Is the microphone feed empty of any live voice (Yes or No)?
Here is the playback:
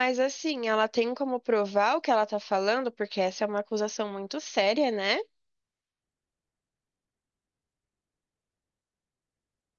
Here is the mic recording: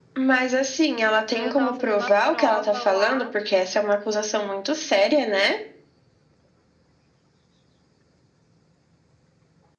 No